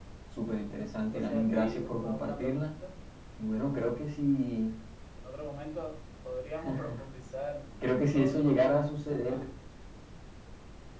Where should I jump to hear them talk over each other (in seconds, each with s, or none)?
1.1 s